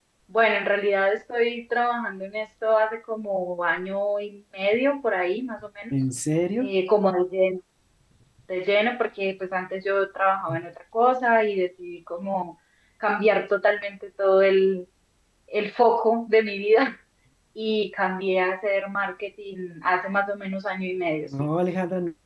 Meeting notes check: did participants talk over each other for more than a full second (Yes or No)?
No